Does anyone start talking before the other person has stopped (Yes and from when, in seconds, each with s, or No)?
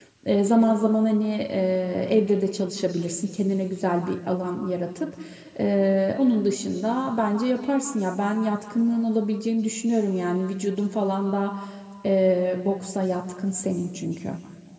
No